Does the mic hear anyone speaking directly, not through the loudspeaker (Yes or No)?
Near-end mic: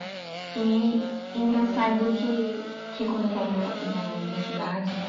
No